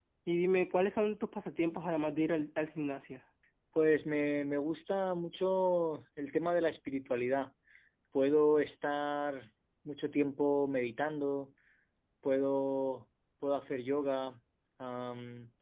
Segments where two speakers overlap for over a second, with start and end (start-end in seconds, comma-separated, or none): none